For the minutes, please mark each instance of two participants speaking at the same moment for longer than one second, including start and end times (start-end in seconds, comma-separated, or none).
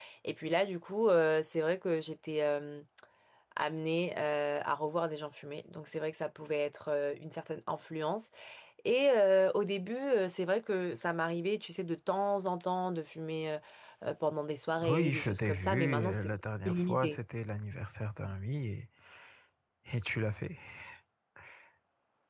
14.9-16.3